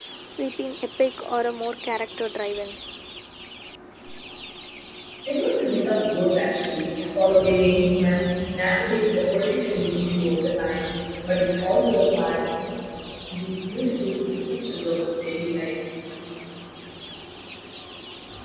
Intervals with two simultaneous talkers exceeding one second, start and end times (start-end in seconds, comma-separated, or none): none